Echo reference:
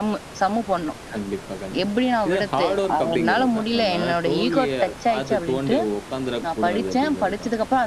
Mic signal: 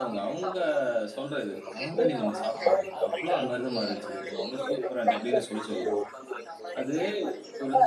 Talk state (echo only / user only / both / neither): both